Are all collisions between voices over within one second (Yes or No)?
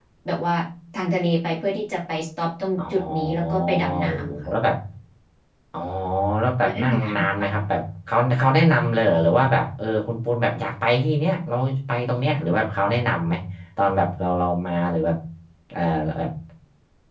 No